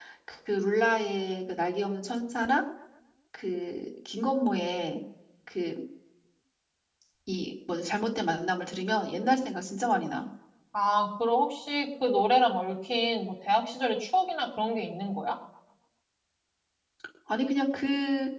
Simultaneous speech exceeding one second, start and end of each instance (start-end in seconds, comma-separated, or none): none